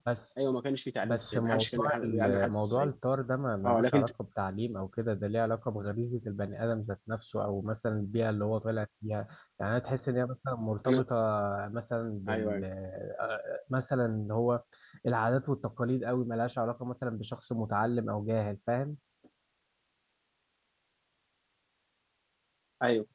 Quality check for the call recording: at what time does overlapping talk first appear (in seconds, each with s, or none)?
1.0 s